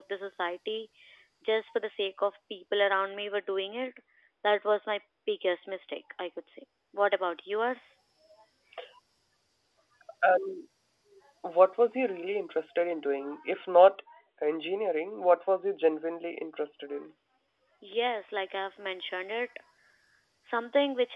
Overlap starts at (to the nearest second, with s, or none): none